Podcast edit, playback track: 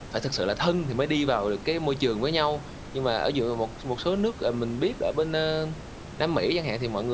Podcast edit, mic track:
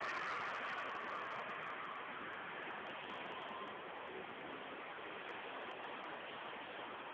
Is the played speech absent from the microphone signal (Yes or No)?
Yes